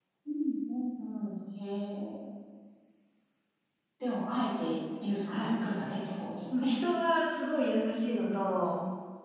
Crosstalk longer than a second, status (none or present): none